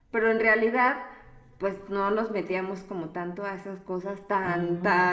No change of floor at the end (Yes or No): Yes